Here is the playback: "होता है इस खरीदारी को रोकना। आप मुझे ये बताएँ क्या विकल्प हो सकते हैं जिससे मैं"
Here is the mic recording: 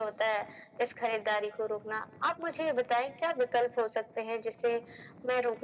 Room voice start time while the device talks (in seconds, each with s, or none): none